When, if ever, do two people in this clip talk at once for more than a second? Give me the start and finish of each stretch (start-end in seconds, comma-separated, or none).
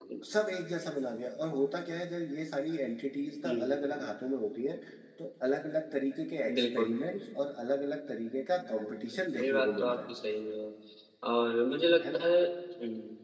8.7-10.1